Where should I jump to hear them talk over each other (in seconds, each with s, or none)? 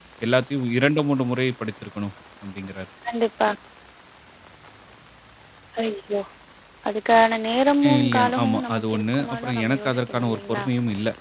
7.8 s